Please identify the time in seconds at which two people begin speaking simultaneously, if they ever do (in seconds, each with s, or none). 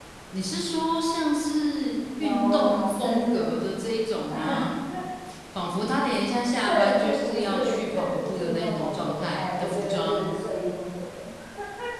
2.2 s